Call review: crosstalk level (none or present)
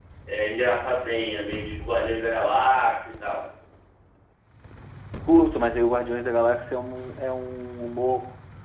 none